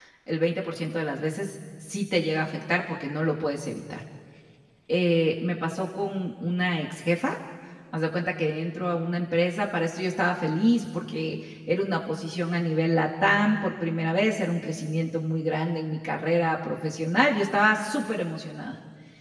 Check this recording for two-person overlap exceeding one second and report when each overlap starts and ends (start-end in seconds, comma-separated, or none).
none